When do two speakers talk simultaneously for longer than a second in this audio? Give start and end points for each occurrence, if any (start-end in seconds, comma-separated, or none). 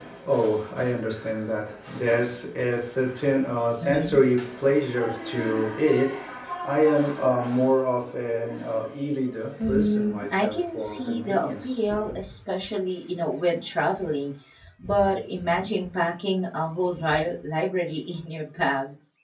9.6-11.9